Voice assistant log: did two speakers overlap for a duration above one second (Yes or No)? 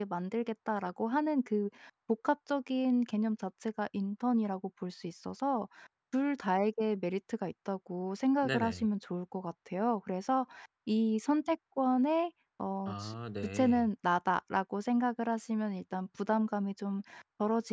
No